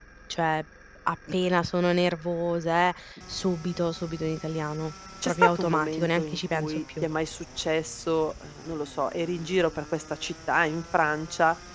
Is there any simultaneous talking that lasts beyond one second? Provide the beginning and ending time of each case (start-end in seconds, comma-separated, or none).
5.2-7.0